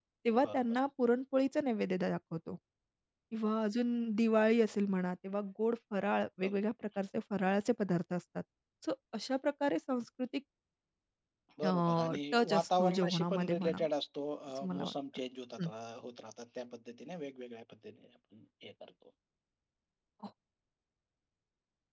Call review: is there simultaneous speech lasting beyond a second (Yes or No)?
Yes